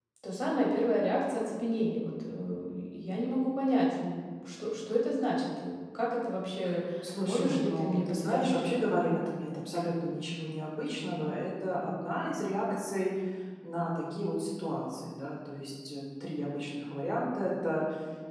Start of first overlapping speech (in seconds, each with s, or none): 7.2 s